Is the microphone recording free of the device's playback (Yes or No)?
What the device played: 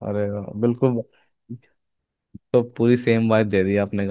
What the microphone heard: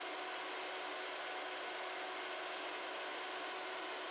Yes